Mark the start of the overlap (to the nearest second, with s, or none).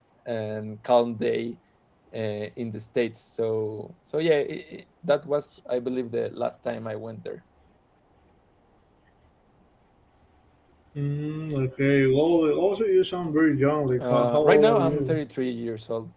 14 s